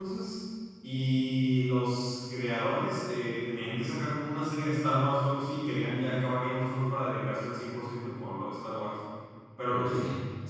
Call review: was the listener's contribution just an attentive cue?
Yes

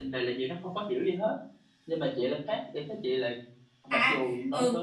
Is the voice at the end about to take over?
Yes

